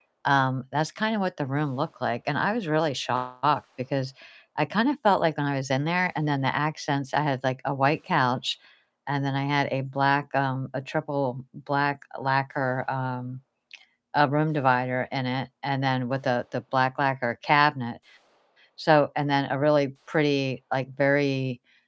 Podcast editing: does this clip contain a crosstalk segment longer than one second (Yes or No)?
No